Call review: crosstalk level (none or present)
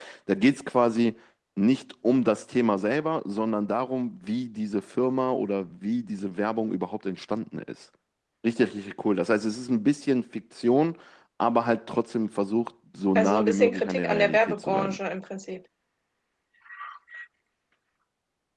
present